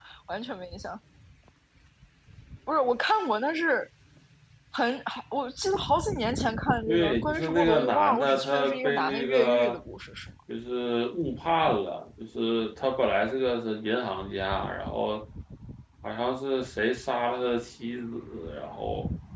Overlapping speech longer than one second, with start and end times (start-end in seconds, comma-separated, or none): 6.9-9.8